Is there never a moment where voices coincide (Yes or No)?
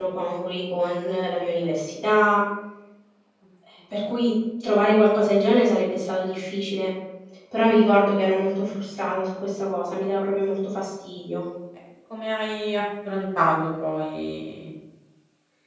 Yes